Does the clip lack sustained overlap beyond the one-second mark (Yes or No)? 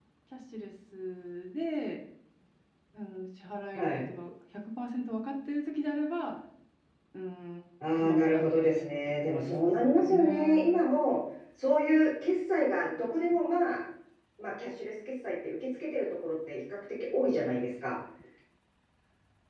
No